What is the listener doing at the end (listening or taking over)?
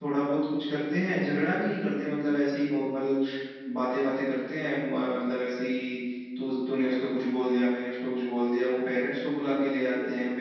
listening